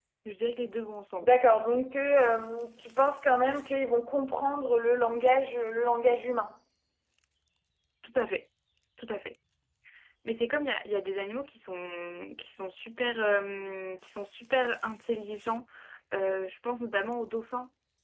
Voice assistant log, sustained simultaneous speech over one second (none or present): none